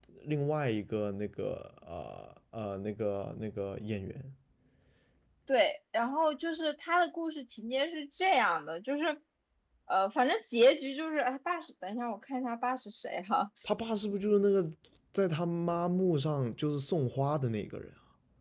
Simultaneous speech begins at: none

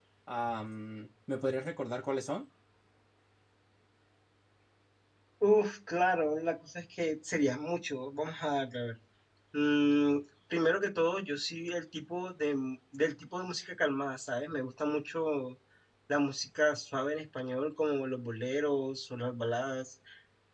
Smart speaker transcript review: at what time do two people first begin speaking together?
none

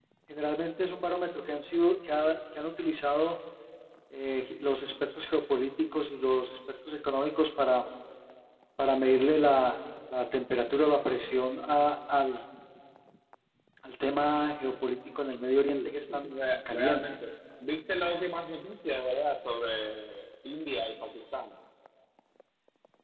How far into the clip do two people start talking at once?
15.6 s

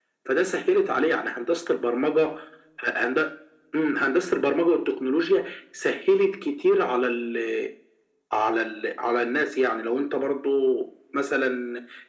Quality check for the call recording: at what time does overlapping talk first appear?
none

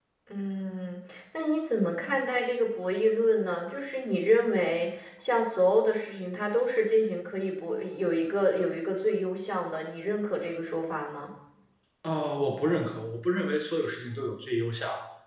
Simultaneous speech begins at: none

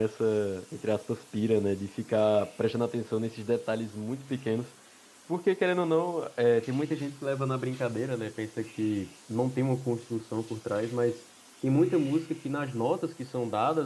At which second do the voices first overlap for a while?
none

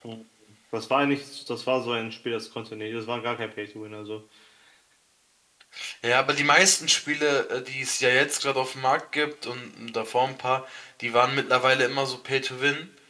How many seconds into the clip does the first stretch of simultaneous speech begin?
none

